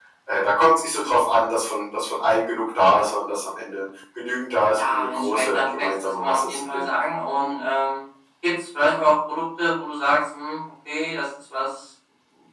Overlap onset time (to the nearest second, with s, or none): 5 s